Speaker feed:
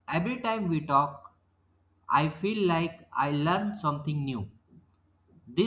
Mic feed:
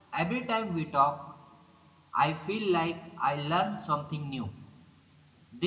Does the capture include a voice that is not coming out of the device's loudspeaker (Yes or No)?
No